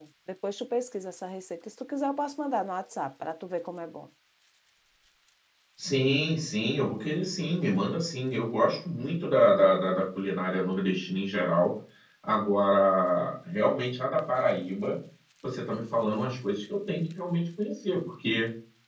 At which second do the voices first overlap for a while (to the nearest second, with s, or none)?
none